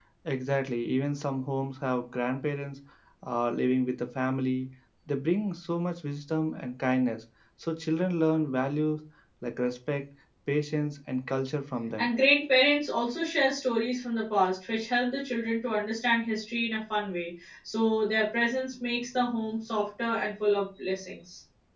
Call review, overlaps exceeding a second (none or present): none